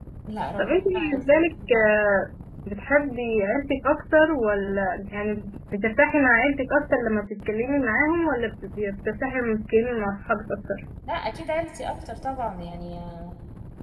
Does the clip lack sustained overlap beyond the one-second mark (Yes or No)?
No